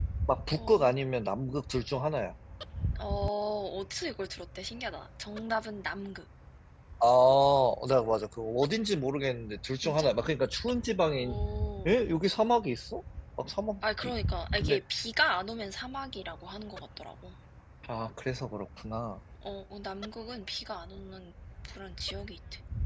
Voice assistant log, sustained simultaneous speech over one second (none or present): none